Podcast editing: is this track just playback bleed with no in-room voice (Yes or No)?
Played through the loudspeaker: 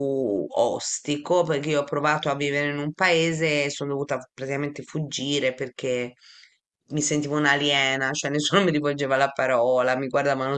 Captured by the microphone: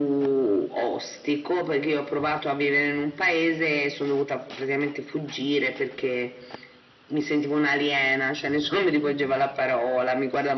Yes